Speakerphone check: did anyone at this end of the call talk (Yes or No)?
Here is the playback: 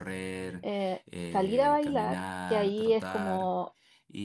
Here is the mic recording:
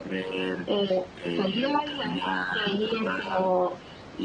No